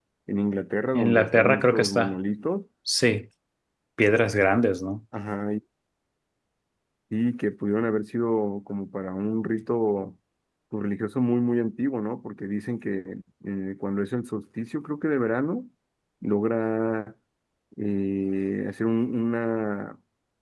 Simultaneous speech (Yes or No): Yes